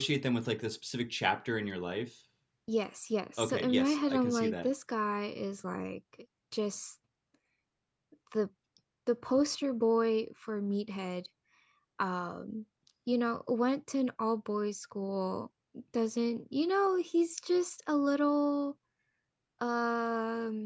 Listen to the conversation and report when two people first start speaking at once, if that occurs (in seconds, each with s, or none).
3.4 s